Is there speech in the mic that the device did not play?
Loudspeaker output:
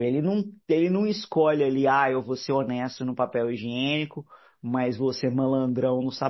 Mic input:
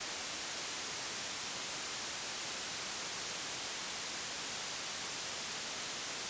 No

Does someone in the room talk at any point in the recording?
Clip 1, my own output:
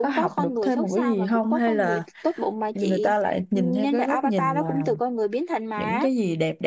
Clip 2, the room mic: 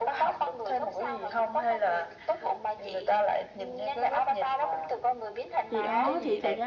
Yes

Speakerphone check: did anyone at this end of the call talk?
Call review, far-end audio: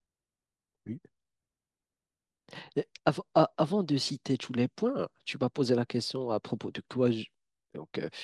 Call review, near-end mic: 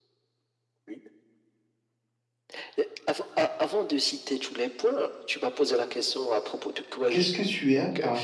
Yes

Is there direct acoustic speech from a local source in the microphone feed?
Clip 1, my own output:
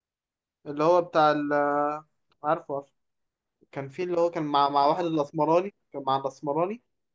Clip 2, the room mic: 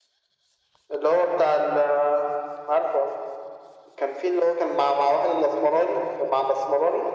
No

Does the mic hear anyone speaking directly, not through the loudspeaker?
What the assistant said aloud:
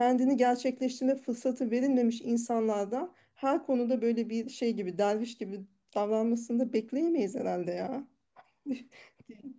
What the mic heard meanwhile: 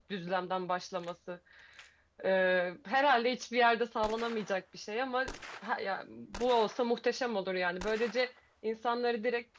Yes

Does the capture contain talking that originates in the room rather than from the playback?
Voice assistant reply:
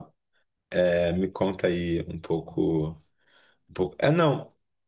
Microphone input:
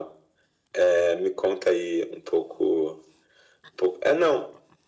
No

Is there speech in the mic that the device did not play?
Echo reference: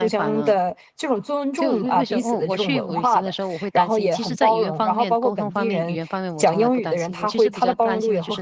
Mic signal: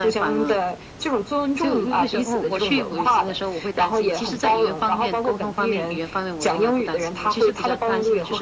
No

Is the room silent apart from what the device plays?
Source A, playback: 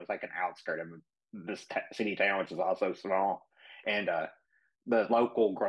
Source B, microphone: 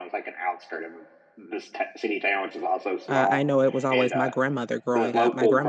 No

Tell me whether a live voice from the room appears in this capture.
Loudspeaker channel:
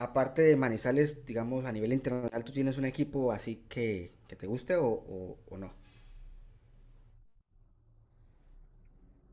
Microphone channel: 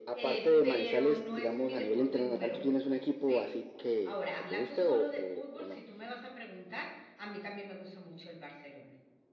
Yes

